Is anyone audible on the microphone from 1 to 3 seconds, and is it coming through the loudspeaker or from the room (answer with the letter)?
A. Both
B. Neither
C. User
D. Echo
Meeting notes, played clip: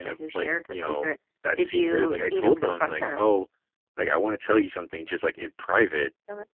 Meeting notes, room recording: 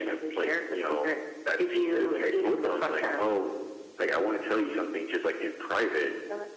D